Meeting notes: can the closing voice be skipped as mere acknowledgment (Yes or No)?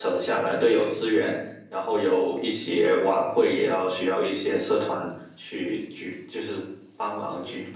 No